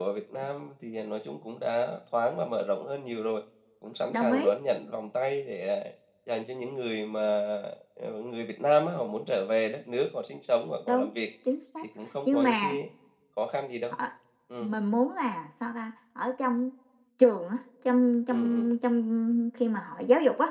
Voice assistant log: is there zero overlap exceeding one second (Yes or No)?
Yes